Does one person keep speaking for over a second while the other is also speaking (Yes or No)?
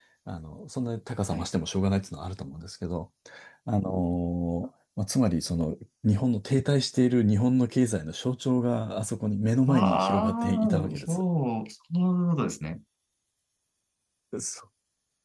Yes